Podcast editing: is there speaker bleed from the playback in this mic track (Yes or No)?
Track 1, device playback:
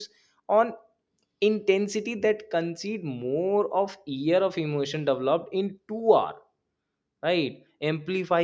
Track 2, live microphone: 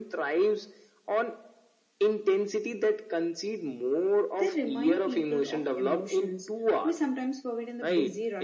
Yes